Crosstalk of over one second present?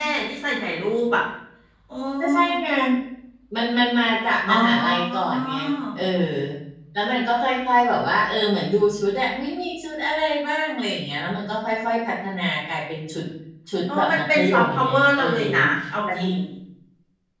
Yes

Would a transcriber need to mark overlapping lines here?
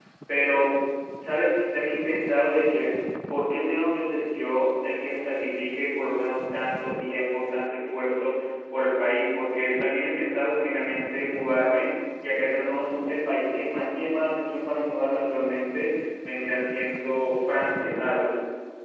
No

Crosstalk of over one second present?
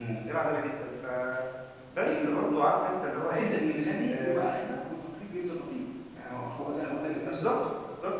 No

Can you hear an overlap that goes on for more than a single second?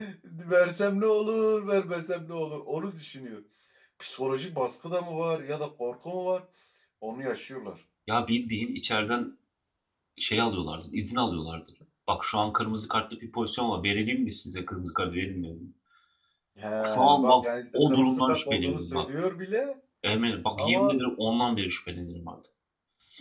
Yes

